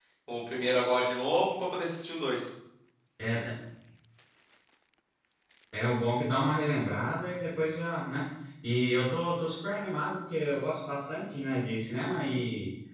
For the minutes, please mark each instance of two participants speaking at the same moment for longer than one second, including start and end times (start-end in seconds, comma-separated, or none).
none